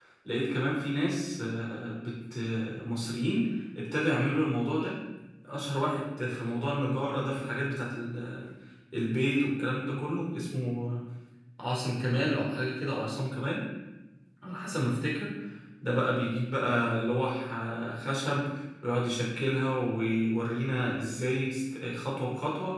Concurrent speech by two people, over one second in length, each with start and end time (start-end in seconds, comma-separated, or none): none